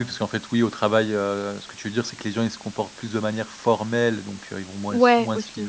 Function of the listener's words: listening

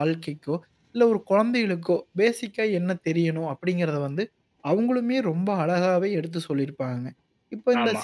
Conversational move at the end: listening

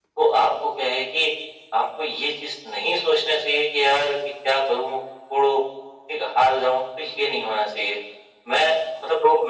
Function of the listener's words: taking over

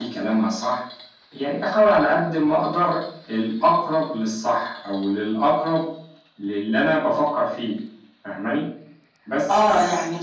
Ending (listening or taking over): taking over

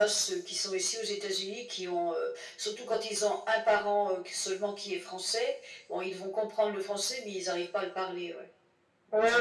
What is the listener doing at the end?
taking over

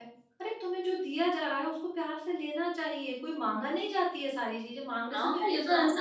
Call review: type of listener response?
taking over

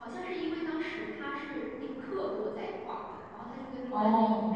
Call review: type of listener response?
listening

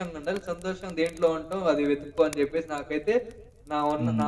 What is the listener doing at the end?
taking over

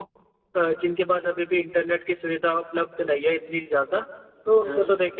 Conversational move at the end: listening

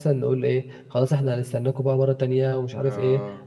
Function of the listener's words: listening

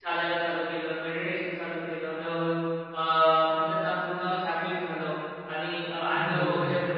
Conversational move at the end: listening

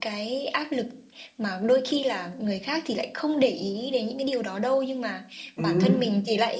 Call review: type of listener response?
listening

